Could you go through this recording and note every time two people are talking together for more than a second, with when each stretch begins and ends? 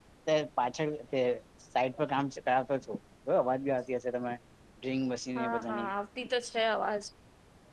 none

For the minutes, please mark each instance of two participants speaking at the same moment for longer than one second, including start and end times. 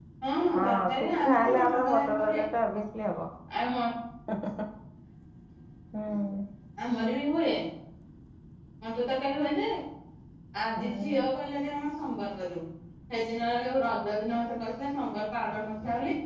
0.6-2.4

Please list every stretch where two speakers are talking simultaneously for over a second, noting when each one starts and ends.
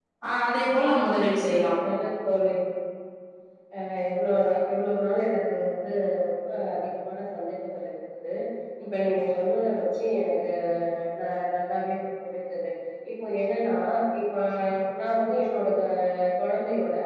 none

